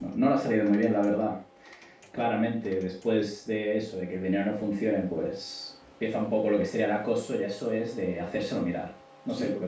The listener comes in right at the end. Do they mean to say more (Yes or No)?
Yes